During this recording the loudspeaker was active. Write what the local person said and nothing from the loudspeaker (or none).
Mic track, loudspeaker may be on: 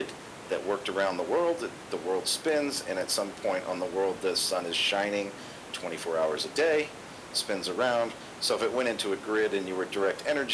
none